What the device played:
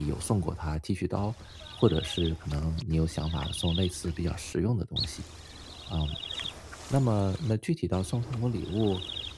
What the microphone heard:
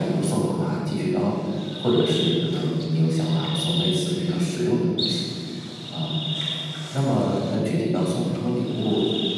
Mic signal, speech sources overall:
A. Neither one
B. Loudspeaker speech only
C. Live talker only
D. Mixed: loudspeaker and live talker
B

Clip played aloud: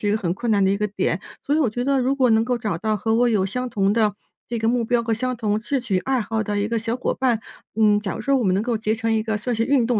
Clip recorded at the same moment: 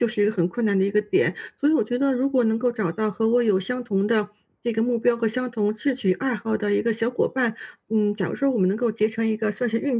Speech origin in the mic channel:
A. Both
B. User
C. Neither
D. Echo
D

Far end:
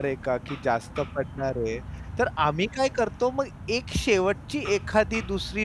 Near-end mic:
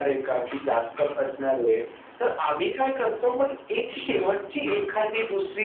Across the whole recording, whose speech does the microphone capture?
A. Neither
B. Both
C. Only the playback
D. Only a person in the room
C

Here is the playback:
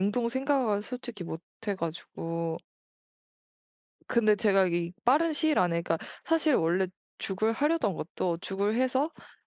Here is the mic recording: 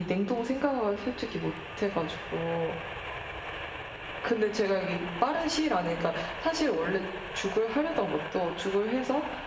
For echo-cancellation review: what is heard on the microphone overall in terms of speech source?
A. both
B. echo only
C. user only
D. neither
B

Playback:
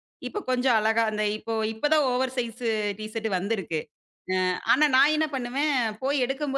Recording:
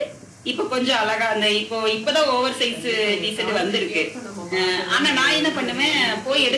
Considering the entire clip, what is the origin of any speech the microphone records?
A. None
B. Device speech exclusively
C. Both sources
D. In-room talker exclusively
C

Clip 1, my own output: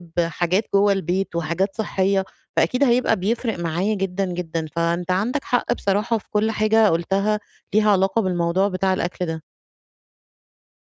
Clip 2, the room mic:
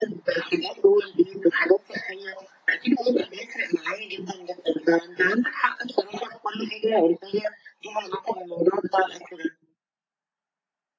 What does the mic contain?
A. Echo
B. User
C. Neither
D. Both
A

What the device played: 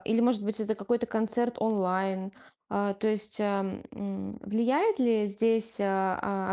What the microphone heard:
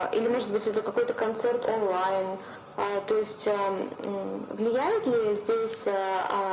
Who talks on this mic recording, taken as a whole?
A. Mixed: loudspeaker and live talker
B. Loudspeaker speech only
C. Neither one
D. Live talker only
B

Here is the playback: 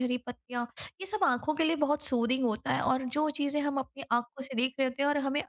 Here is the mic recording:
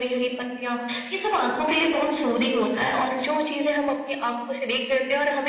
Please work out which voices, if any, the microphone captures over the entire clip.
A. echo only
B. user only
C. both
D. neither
A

